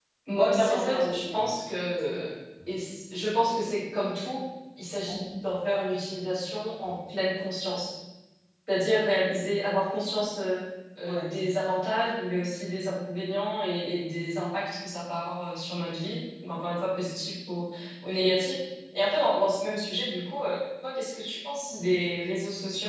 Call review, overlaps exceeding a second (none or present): present